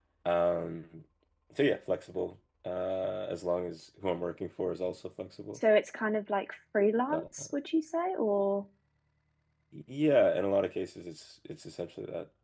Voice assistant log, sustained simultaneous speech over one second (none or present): none